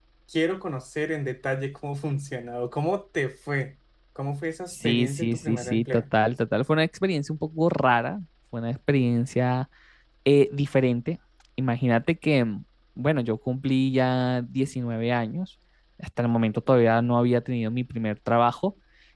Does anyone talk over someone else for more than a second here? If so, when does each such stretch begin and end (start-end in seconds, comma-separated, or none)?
4.7-6.0